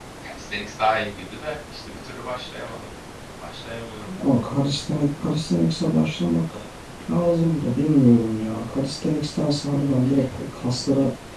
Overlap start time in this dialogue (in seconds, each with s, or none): none